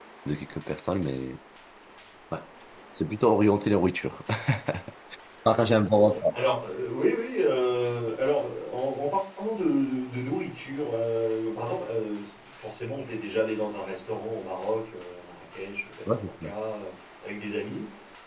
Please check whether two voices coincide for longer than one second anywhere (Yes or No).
No